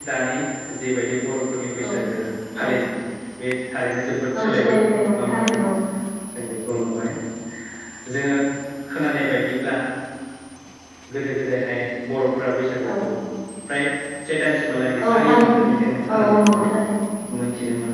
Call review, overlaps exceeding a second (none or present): present